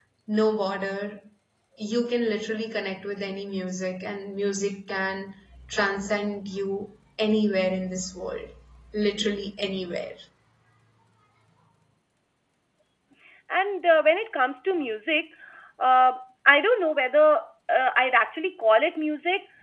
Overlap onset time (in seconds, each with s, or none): none